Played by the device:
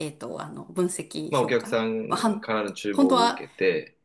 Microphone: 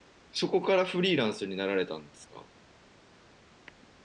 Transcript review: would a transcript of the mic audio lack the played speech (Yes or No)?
Yes